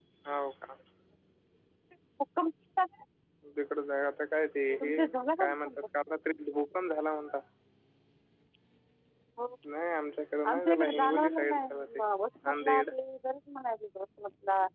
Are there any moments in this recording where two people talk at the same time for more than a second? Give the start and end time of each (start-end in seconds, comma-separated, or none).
10.5-12.0